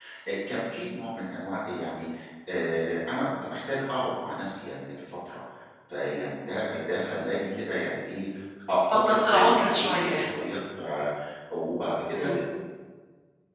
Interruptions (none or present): present